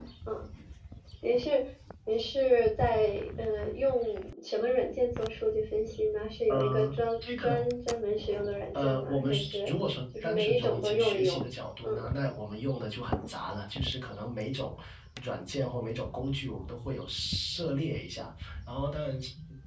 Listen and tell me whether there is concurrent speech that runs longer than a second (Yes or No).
Yes